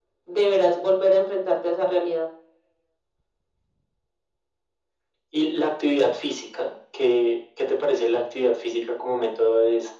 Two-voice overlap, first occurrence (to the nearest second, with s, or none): none